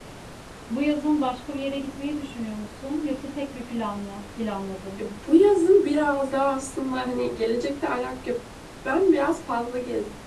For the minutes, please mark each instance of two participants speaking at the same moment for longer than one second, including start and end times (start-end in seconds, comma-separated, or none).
none